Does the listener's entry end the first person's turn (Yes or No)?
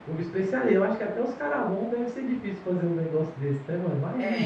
Yes